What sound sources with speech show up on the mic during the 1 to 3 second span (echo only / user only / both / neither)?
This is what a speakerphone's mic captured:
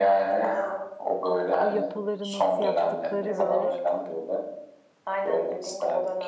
both